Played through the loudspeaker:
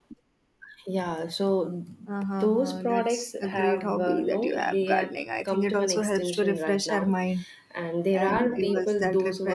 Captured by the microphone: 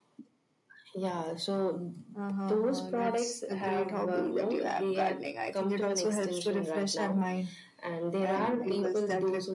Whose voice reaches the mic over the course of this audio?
echo only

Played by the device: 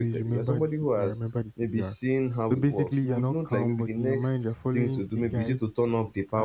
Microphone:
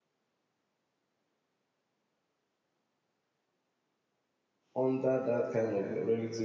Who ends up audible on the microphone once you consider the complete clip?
user only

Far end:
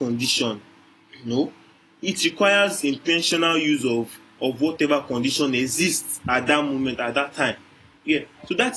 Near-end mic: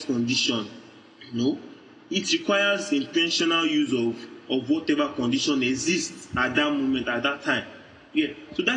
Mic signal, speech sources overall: echo only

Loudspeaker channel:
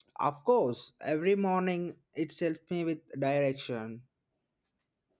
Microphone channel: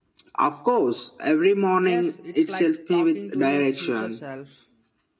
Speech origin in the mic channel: both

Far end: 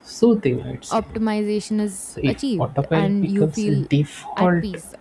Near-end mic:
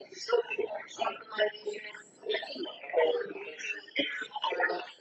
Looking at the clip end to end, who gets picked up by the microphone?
echo only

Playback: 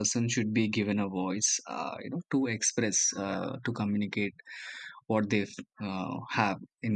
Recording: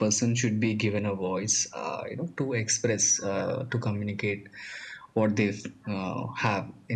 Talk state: echo only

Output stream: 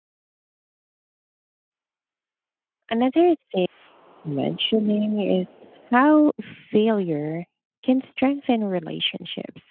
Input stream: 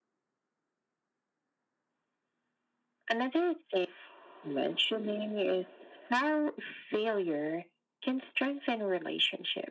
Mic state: echo only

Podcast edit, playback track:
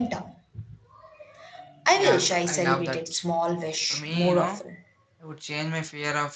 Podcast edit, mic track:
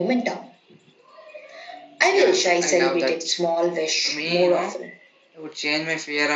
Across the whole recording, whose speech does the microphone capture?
echo only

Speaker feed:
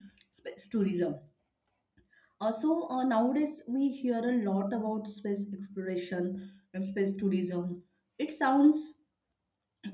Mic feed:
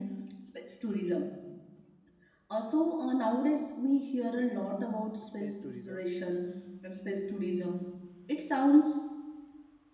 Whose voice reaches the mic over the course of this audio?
both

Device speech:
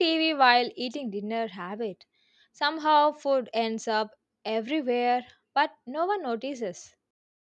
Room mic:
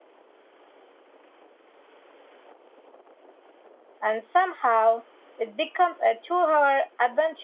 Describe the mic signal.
user only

